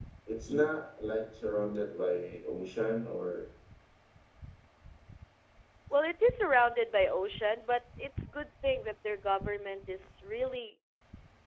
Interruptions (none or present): none